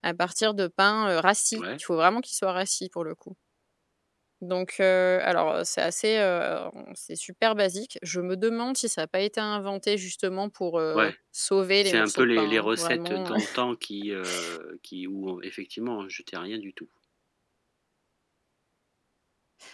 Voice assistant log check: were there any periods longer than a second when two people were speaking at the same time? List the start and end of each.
11.8-13.3

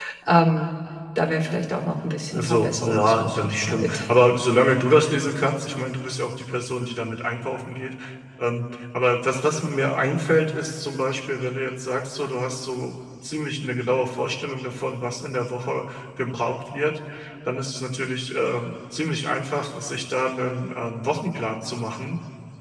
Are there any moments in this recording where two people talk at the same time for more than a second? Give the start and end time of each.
2.3-4.0

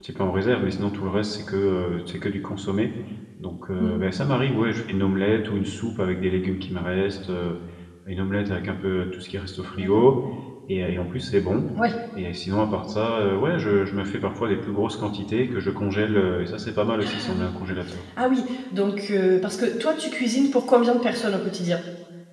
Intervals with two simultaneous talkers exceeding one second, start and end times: none

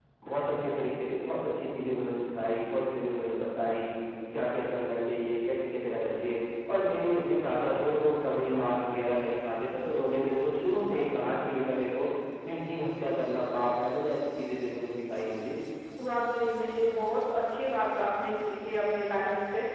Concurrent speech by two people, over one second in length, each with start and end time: none

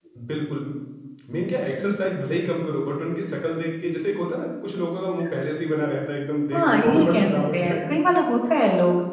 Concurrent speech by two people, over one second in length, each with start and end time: 6.5-7.8

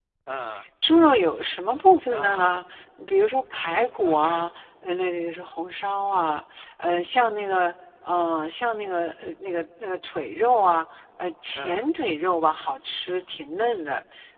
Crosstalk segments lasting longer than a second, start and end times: none

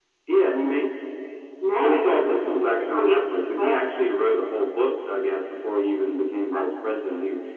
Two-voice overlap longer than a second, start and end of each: none

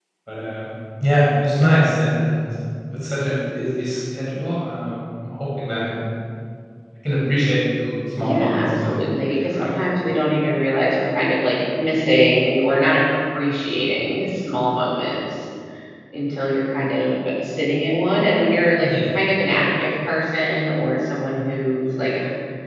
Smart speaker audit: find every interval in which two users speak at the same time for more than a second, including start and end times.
8.2-9.7

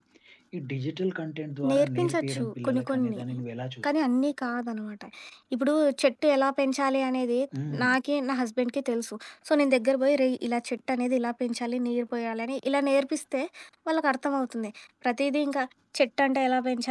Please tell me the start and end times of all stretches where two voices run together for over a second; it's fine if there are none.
1.7-3.2

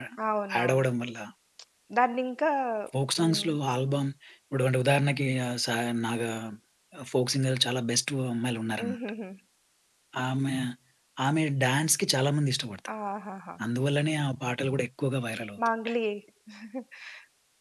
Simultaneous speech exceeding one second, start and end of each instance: none

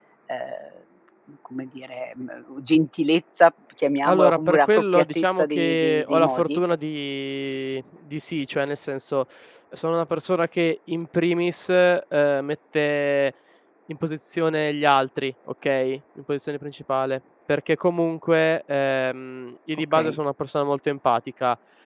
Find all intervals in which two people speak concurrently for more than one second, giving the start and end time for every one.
4.0-6.6

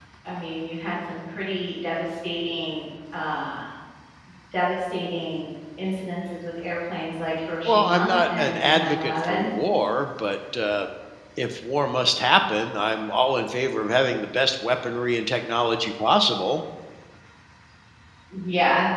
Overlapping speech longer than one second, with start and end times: 7.7-9.5

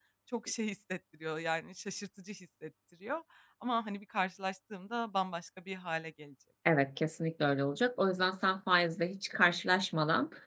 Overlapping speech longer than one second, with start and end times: none

